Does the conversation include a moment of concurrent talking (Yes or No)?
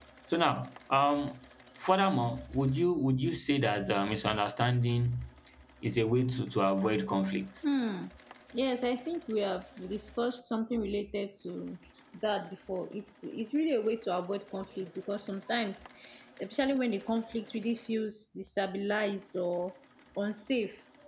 No